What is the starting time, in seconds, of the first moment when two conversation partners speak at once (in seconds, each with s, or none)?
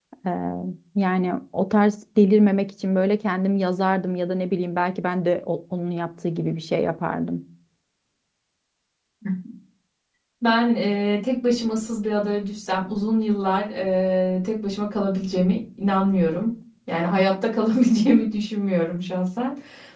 none